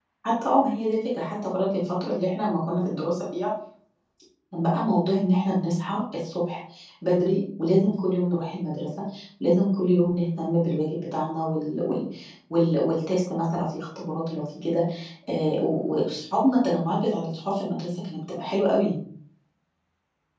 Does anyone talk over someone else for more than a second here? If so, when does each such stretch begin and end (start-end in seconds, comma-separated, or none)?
none